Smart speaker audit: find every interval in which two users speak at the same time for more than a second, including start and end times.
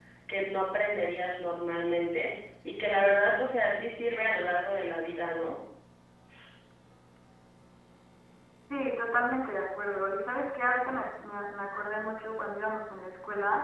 none

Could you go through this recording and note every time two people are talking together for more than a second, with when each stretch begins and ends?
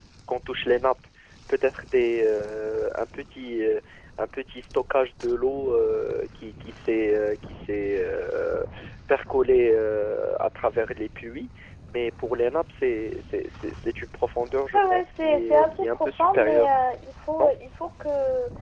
14.7-16.7

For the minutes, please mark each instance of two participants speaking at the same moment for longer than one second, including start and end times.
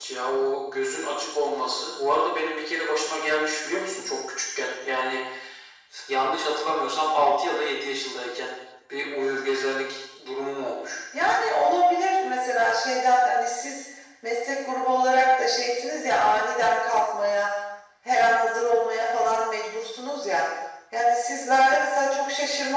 none

